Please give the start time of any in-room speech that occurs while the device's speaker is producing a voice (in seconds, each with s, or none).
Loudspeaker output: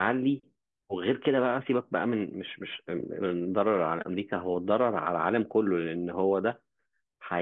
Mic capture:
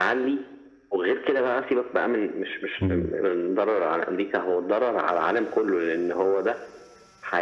2.8 s